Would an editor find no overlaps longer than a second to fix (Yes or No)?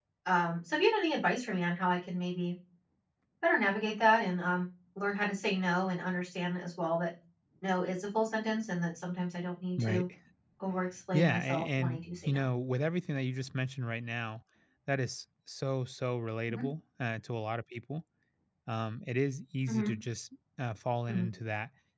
No